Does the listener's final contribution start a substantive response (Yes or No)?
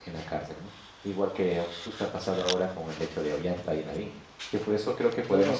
No